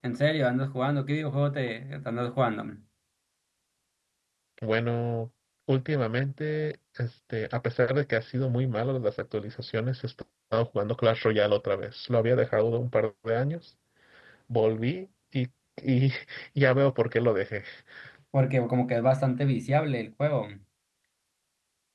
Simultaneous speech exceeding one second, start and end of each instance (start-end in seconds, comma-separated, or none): none